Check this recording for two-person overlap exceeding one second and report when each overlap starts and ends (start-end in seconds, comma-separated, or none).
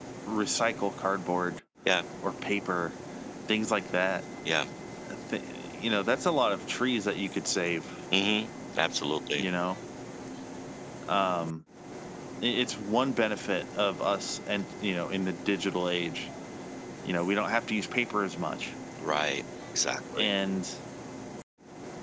none